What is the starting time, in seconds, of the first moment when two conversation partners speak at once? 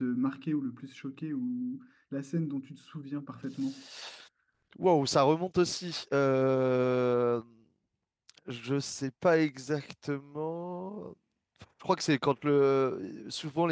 none

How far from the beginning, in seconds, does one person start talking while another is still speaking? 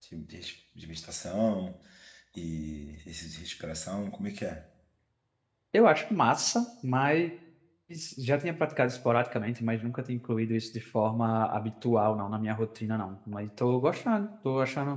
none

